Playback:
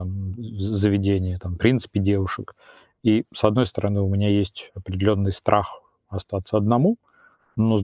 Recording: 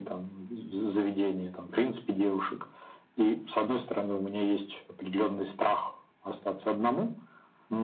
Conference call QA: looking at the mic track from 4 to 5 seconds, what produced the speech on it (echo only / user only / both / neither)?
echo only